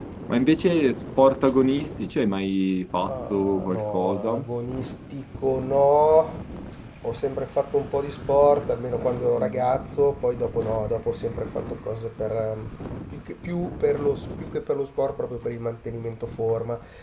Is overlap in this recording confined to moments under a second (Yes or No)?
No